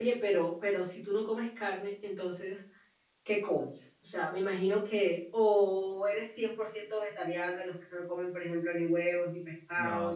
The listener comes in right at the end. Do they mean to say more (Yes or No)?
Yes